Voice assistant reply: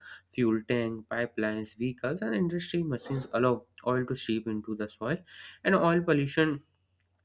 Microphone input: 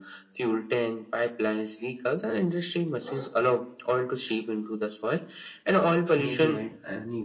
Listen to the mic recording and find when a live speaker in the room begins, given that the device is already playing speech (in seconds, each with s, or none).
6.2 s